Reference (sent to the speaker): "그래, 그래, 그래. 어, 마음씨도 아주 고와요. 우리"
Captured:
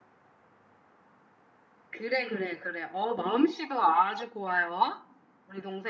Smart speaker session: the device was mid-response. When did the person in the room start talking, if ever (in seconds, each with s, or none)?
none